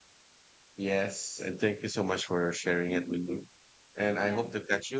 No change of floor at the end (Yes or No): Yes